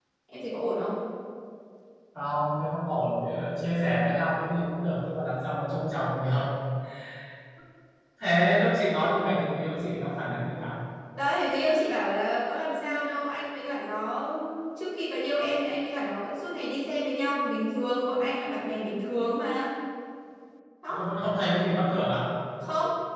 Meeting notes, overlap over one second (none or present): none